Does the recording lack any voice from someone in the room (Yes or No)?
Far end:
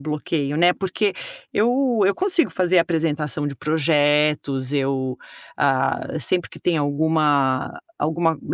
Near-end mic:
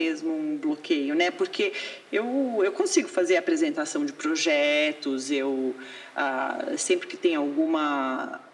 Yes